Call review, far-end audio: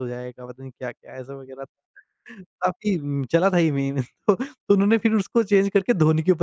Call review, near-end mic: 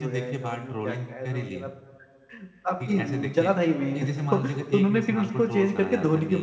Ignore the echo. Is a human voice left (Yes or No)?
Yes